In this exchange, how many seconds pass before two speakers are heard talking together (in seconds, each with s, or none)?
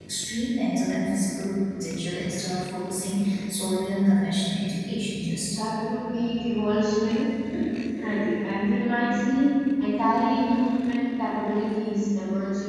none